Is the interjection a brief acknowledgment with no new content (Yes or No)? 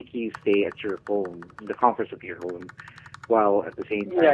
No